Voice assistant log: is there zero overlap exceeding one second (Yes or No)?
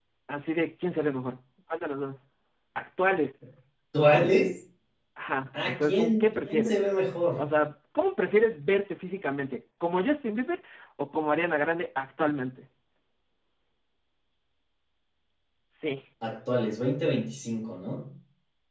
No